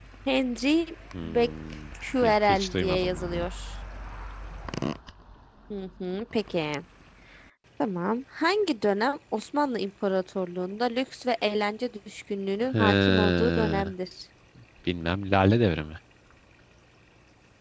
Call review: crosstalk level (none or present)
present